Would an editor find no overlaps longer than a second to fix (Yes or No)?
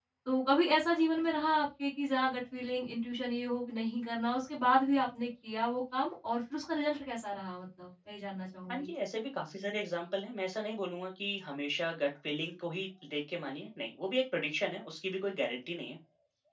Yes